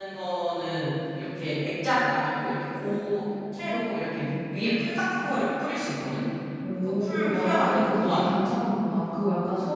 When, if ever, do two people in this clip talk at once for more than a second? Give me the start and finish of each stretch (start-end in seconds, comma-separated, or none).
6.7-8.3